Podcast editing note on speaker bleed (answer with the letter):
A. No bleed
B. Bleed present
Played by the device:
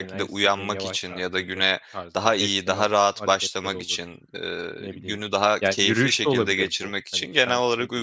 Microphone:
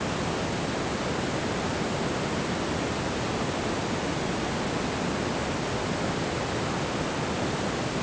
A